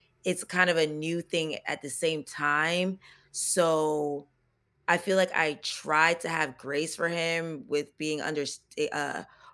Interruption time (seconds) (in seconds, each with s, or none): none